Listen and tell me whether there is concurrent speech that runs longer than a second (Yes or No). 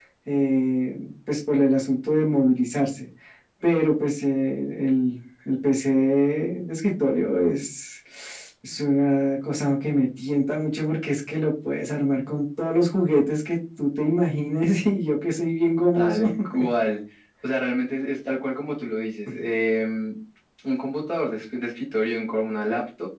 No